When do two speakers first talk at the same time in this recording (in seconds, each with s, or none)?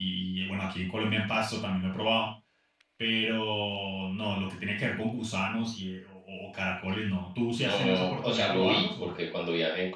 7.6 s